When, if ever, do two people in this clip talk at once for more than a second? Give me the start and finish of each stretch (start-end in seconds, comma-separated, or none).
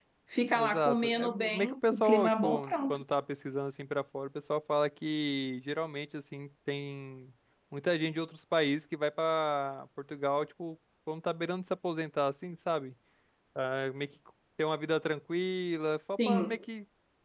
0.6-3.0